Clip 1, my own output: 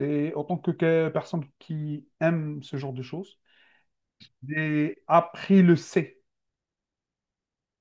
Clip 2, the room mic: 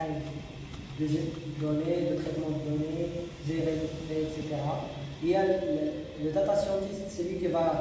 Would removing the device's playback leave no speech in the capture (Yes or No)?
No